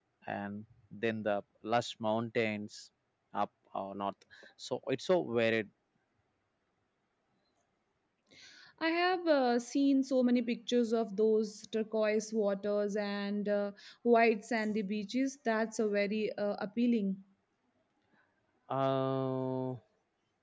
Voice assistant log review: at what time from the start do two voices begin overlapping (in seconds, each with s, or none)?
none